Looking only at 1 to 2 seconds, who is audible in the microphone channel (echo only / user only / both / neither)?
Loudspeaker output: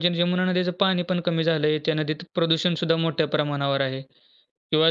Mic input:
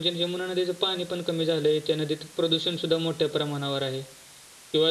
echo only